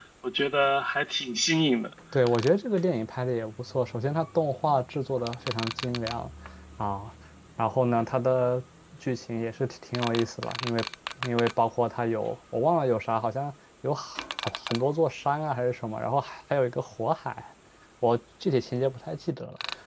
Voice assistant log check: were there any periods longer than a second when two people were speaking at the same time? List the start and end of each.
none

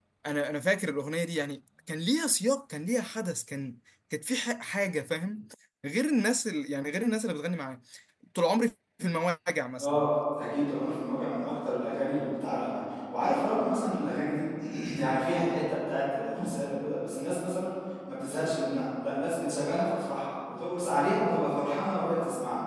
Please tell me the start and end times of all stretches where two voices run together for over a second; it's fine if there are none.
none

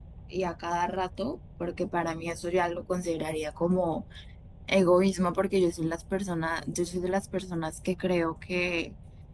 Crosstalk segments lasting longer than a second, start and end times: none

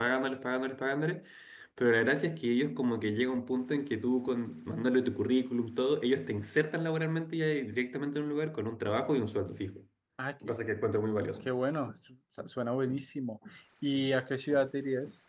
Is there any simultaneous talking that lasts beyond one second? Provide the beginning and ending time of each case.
none

